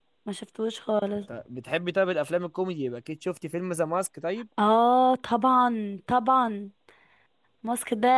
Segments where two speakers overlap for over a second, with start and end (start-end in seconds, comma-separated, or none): none